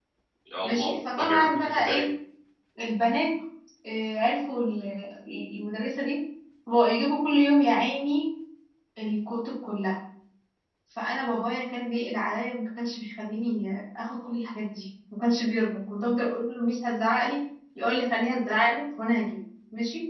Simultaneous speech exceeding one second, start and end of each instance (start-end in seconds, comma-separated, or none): 0.6-2.0